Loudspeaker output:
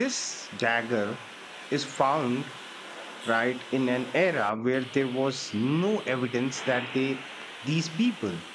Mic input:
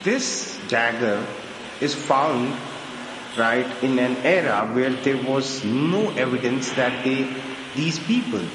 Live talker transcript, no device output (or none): none